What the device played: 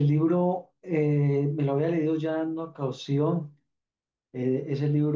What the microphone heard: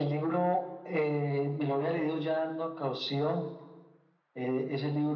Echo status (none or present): present